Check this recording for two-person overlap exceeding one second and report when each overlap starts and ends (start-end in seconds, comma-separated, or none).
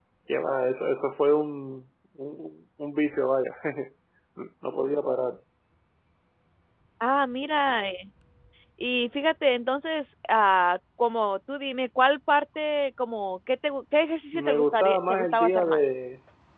14.3-15.9